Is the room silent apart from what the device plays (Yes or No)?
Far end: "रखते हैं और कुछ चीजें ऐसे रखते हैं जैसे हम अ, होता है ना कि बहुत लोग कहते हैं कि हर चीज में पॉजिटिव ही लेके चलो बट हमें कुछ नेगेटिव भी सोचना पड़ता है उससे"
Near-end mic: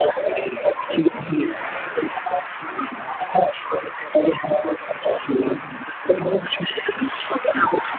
Yes